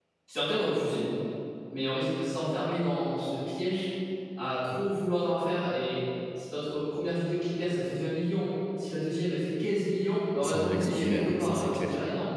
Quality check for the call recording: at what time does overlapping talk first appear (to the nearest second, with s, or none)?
10 s